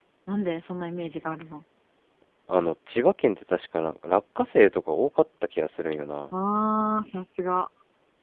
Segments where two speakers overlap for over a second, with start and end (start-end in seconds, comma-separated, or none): none